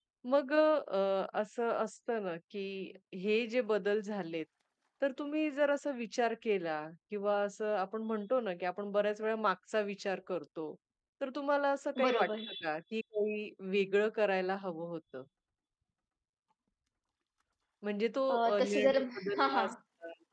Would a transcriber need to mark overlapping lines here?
Yes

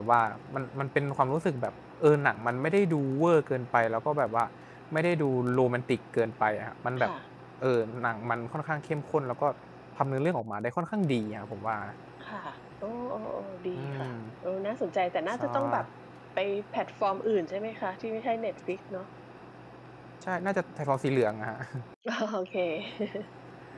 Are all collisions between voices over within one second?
Yes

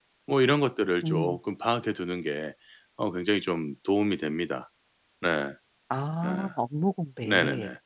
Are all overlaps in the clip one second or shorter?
Yes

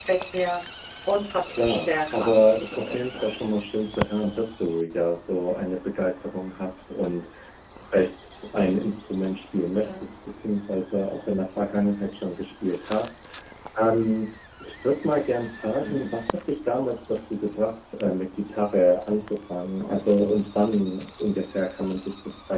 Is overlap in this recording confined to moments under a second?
No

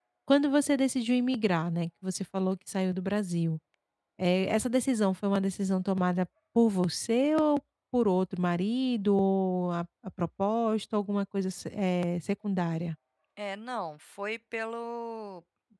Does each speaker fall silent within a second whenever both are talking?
Yes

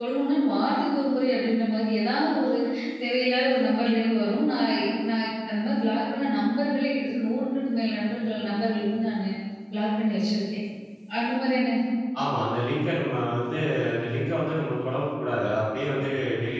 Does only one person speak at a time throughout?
Yes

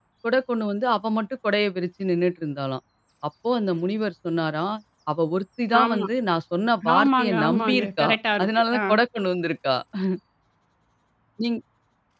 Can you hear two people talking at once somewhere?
Yes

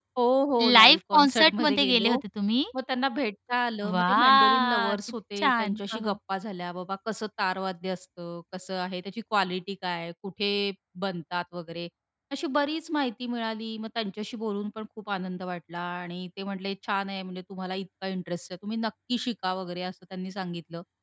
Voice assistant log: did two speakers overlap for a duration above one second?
Yes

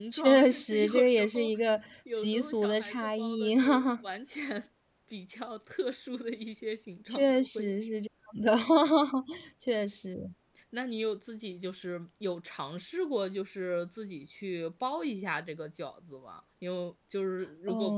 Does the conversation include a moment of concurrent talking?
Yes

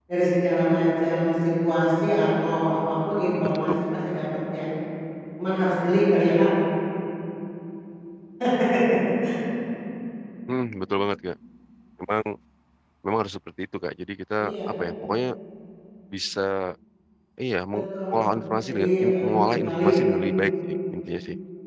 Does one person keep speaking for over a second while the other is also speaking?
Yes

